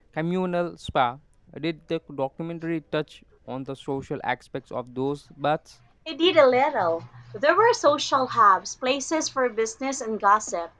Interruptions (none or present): none